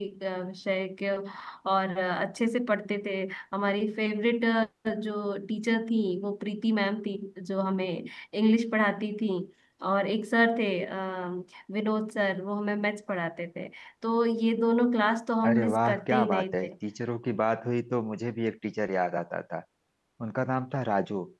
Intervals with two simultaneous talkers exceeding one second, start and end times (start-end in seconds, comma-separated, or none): 15.4-16.7